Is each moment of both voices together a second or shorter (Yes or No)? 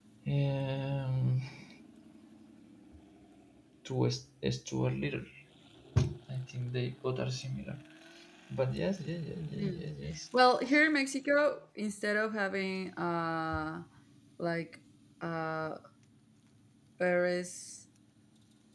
Yes